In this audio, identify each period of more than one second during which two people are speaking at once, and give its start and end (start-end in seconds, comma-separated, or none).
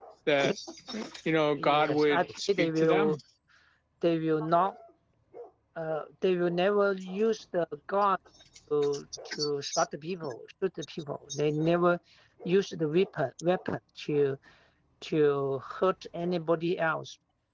1.6-3.1